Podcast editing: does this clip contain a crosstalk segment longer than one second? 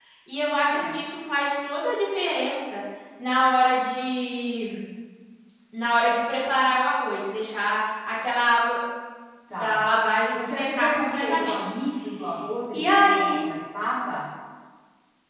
Yes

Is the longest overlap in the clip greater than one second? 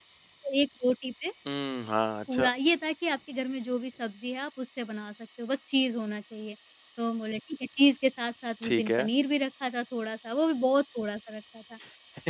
No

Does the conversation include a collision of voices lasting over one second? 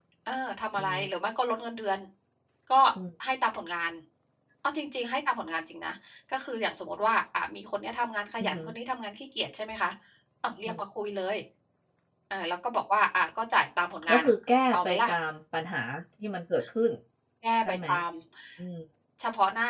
No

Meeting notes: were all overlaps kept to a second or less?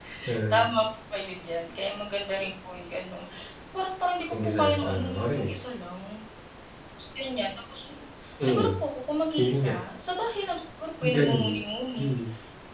No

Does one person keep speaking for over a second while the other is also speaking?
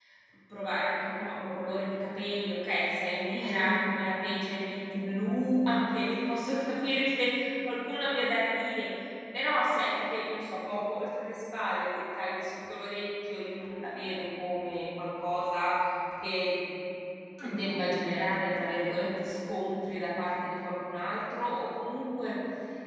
No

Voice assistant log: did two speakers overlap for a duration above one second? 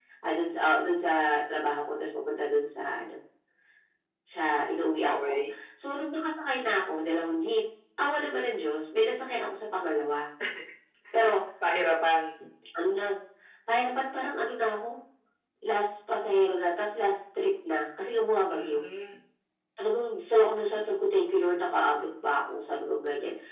No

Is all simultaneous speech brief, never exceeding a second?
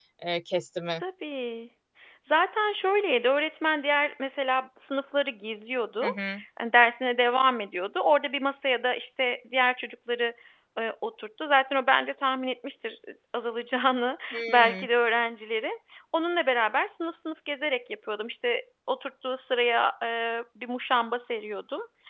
Yes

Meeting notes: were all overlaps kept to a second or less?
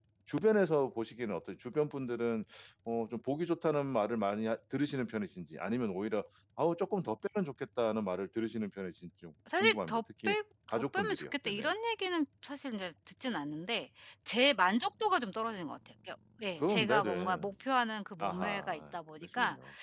No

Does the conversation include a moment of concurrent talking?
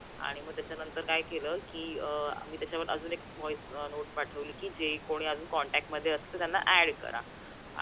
No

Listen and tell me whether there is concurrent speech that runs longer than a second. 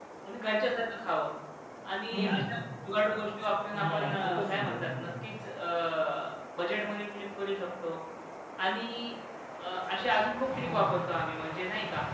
Yes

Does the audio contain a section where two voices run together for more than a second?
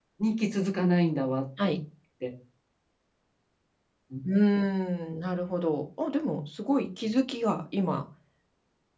No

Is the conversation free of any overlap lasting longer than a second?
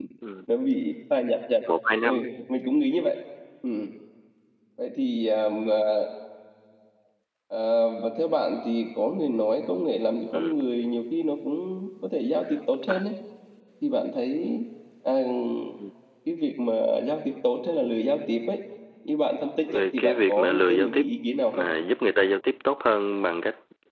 No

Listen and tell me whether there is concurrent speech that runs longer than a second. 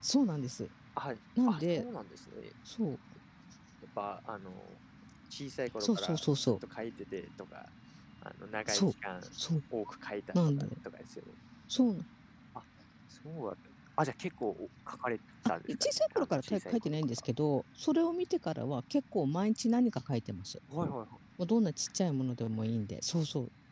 Yes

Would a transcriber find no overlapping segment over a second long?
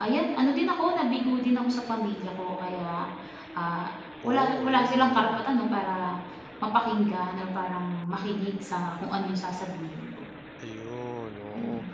No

